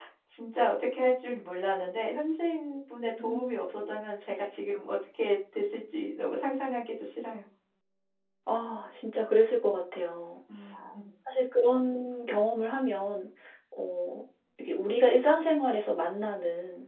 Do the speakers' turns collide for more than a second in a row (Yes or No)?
No